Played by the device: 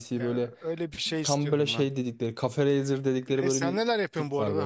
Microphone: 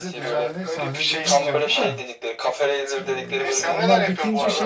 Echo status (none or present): present